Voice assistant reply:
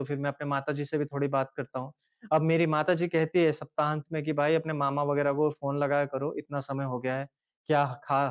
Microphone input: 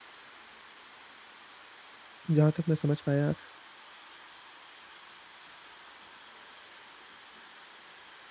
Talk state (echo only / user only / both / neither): user only